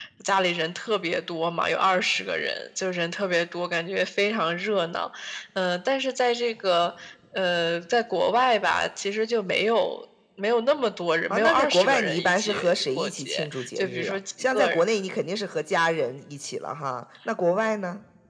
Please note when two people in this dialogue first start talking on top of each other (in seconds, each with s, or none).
11.3 s